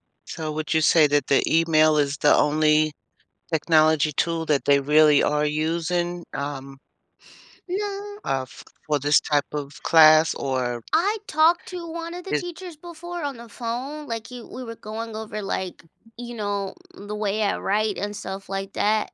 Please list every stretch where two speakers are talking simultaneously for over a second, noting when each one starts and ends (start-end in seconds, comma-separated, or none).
none